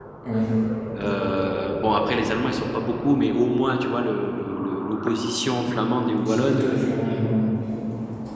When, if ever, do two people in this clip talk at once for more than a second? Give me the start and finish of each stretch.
none

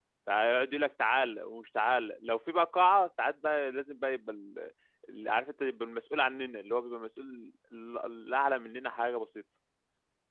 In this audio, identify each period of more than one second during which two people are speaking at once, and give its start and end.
none

